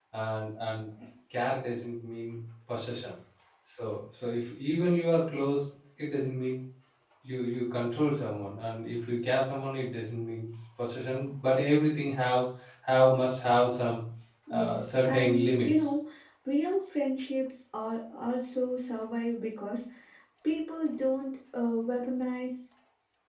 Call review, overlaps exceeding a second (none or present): present